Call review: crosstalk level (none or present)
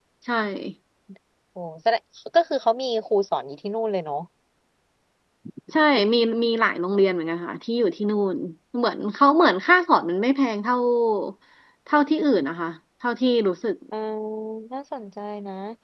none